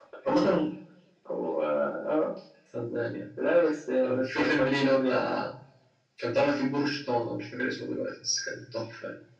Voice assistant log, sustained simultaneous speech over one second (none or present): present